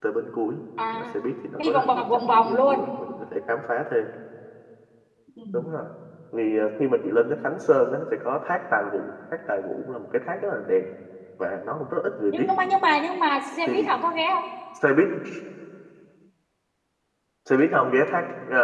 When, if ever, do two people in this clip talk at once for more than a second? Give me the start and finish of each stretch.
1.6-2.8

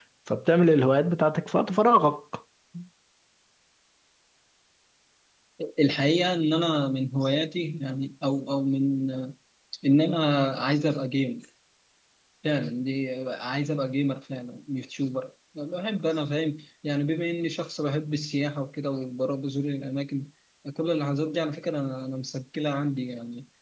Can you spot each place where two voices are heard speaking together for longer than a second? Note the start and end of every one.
none

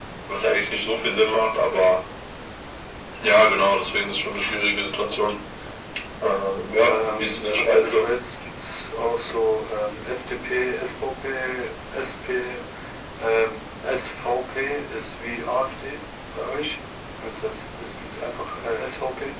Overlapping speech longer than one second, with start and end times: 6.8-8.1

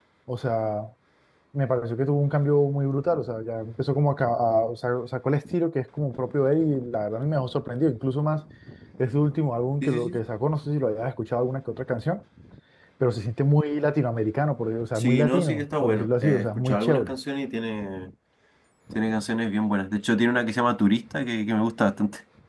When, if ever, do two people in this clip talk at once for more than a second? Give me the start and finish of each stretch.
14.9-17.2

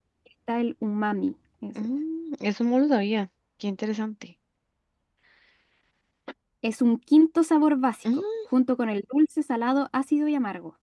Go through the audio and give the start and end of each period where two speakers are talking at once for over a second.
none

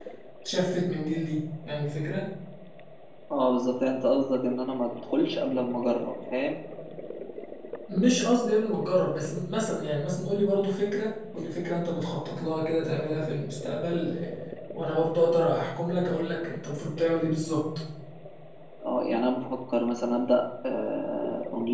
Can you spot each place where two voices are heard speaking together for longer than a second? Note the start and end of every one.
none

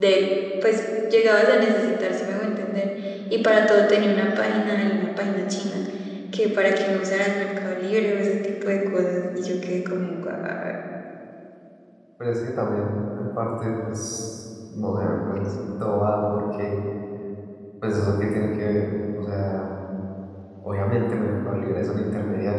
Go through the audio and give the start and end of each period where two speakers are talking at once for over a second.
none

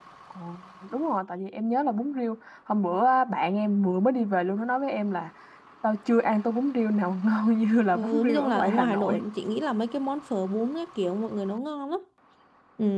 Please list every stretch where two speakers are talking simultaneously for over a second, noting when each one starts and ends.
7.9-9.2

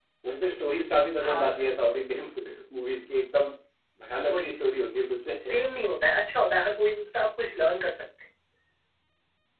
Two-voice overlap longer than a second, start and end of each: none

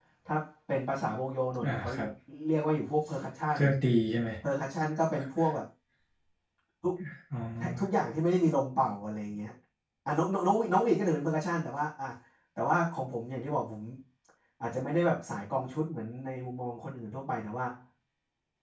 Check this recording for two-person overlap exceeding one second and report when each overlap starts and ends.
none

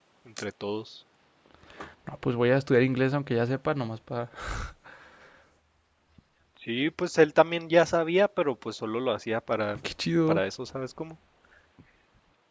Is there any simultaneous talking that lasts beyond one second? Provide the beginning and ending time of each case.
none

